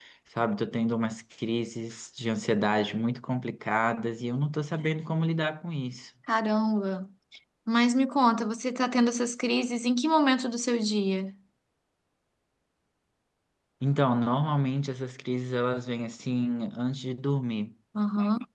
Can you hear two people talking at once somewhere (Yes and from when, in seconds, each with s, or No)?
No